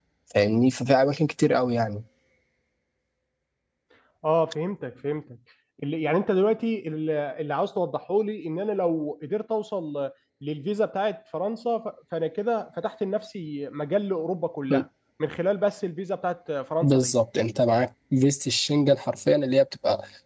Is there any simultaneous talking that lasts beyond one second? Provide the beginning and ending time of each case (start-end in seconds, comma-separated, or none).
none